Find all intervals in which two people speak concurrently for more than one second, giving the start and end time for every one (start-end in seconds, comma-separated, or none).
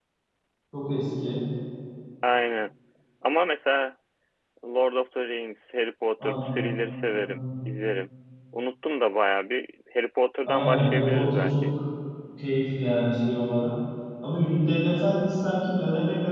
10.4-11.7